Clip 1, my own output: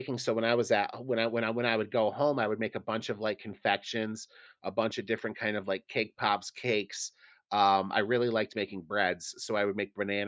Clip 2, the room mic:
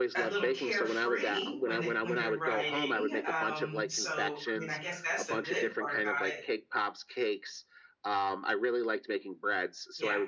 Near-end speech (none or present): present